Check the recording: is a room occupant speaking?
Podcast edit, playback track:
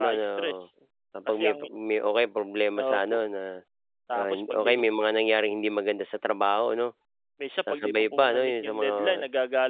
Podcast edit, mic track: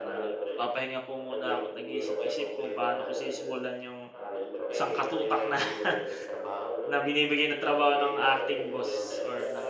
Yes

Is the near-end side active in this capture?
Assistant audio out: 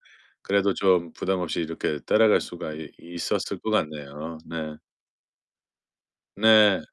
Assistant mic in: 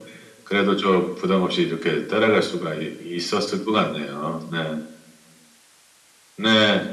No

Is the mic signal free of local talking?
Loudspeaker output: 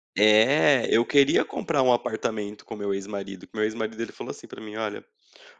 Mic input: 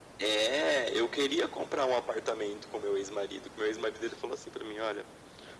Yes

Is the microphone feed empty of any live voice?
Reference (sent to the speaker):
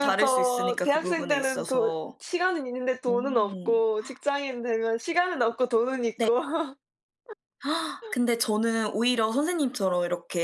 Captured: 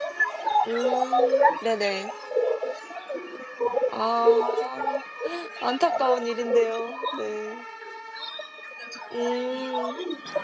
No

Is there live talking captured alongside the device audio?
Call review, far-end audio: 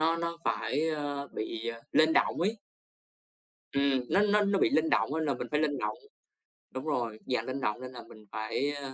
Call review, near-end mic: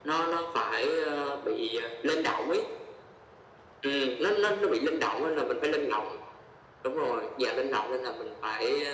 No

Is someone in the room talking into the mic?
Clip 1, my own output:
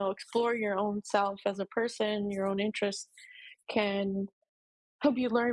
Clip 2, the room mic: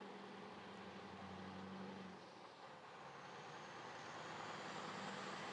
No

